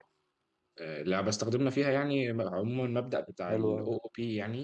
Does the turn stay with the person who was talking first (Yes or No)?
Yes